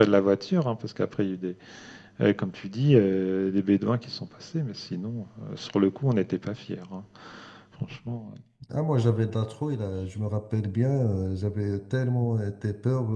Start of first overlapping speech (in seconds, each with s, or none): none